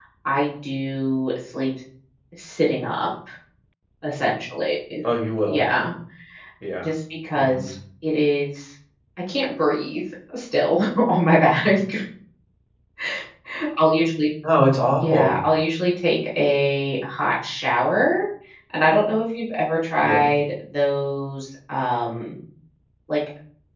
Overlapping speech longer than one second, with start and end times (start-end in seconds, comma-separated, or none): none